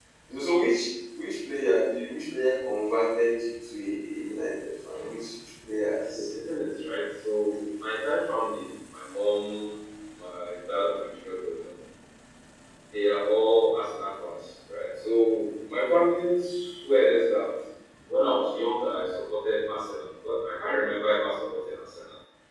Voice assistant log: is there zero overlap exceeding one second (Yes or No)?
Yes